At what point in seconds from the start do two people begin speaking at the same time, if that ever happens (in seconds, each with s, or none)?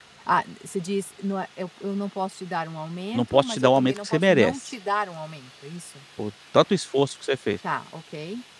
3.1 s